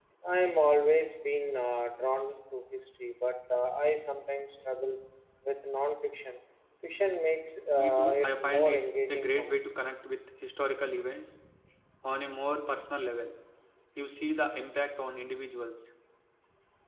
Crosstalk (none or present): present